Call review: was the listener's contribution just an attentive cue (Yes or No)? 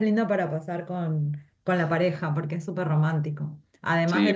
No